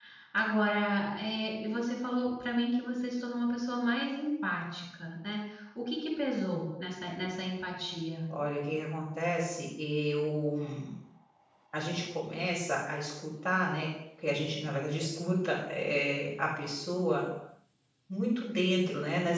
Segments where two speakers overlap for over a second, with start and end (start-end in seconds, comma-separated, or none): none